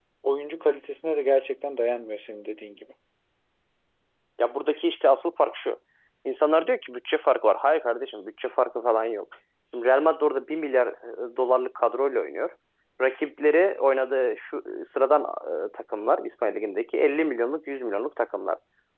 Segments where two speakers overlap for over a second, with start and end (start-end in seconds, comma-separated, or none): none